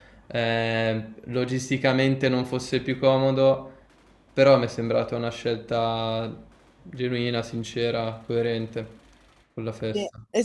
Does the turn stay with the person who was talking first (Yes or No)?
No